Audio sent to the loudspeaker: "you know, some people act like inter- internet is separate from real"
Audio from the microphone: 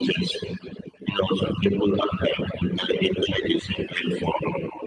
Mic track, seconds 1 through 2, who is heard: echo only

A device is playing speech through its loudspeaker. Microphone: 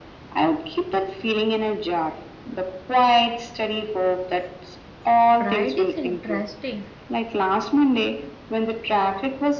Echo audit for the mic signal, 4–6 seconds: both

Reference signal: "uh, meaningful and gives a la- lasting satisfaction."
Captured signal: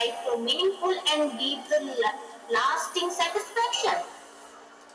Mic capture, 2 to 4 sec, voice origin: echo only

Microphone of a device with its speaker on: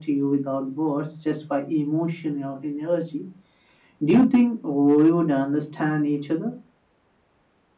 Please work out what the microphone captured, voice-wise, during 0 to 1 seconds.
echo only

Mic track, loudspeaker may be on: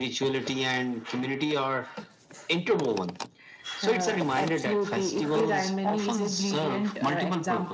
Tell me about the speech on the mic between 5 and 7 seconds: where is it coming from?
echo only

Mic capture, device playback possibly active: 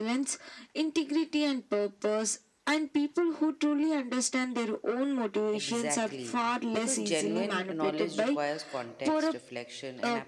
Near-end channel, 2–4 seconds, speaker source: echo only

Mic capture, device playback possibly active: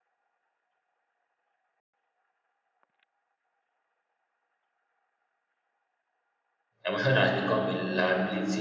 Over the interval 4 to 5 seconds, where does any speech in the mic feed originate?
neither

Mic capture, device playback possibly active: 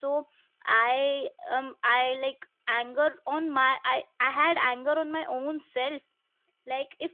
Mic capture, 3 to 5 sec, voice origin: user only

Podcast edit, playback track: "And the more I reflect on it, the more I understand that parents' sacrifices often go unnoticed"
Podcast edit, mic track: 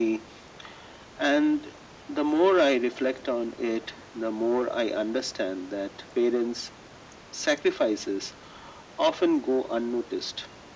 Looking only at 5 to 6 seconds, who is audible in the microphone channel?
echo only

